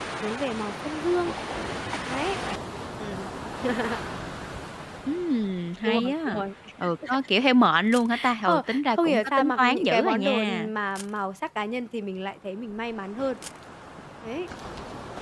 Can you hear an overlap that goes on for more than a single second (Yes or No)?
Yes